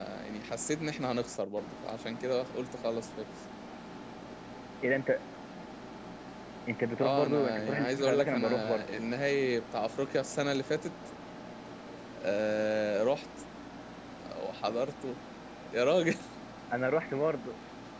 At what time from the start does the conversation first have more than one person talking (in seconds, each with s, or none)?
7.0 s